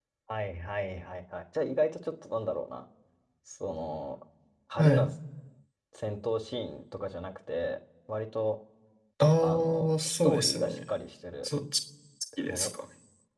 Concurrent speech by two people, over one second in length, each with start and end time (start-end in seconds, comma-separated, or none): 9.4-10.8